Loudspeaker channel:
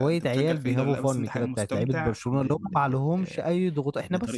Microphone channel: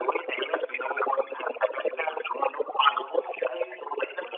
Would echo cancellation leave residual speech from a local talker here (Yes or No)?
No